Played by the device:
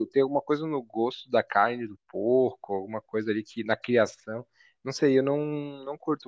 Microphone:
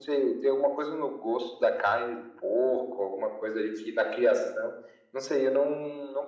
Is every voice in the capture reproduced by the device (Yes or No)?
Yes